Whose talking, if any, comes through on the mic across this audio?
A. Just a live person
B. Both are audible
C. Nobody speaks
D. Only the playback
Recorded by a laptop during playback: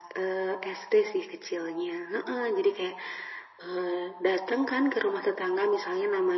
D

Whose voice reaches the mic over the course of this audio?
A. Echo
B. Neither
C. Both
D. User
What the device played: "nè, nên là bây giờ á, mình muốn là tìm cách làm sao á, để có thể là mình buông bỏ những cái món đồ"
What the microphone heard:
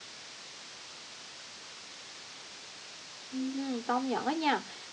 D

